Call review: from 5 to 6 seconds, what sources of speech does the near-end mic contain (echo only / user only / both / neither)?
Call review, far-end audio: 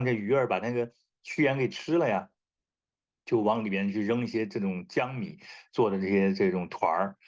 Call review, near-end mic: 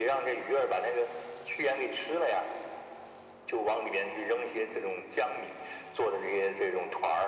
echo only